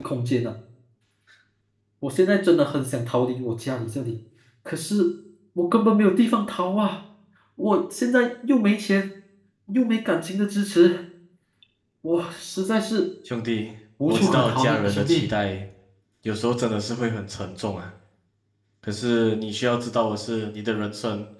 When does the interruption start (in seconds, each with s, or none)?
14.1 s